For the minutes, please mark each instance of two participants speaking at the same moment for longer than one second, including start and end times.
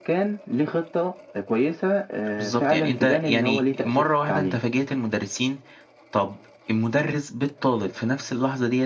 2.4-4.6

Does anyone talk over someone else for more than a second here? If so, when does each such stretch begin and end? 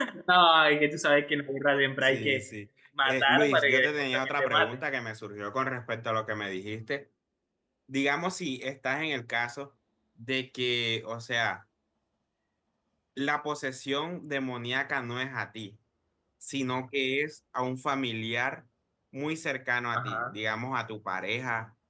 3.0-4.8

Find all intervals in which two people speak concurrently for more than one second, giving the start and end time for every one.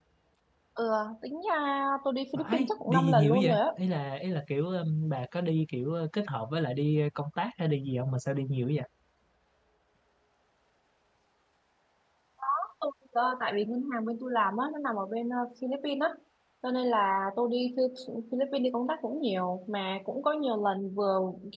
2.4-3.6

